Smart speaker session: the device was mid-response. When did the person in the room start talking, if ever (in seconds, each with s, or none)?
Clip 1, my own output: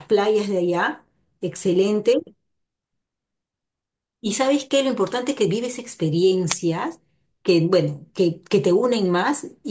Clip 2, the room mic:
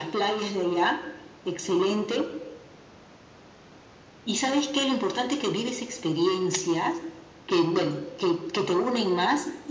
none